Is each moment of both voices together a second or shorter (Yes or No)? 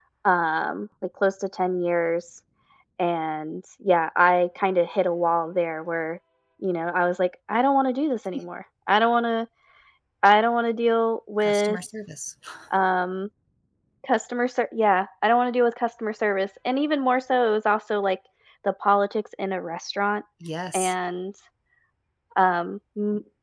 Yes